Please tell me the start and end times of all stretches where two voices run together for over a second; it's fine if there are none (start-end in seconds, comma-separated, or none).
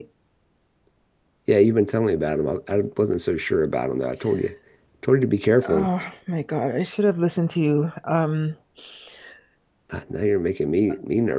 none